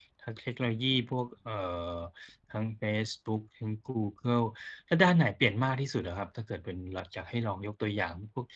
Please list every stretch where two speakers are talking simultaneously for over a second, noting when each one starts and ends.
none

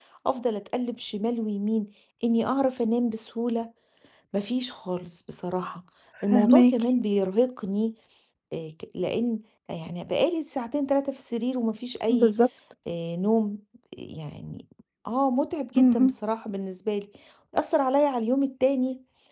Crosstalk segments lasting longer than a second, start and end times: none

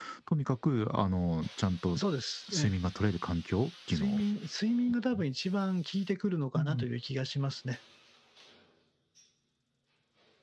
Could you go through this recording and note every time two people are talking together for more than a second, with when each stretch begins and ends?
none

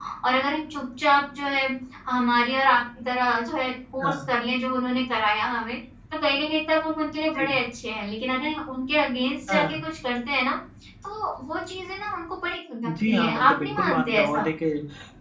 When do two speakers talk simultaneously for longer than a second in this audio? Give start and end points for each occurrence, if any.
12.8-14.5

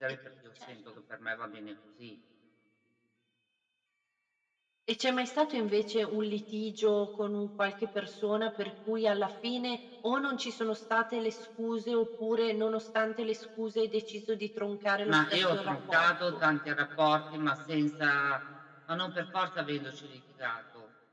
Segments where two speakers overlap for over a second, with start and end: 15.1-16.4

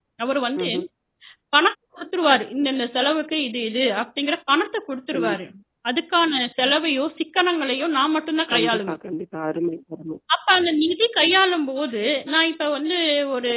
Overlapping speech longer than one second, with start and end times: none

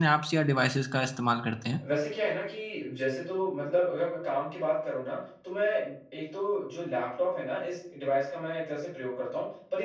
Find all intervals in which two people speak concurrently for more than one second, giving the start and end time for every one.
none

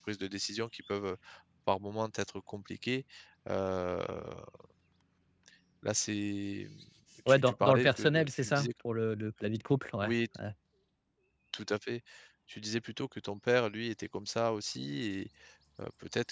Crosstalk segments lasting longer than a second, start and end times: 7.3-8.7

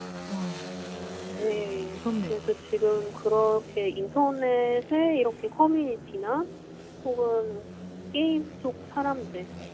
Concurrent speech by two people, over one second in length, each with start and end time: 1.4-3.6

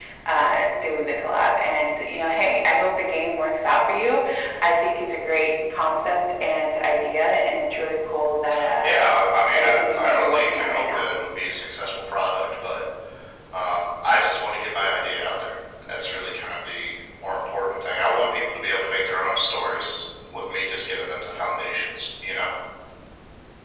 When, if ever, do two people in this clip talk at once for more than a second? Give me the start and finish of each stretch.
9.5-11.1

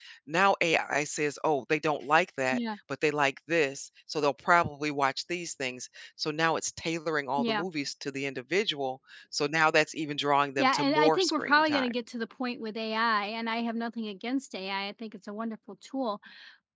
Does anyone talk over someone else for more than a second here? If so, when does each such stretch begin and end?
10.6-11.9

